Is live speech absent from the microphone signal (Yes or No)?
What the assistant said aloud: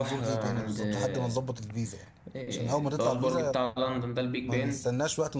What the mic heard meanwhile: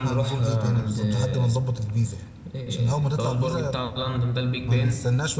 Yes